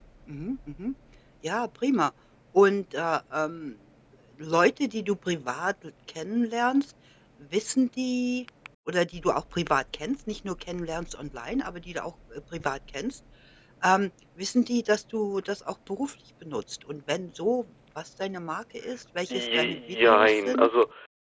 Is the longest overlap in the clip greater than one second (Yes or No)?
Yes